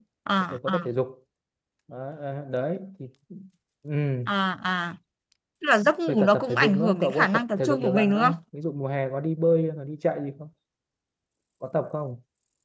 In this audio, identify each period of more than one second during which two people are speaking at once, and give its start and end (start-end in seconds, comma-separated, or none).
6.1-8.3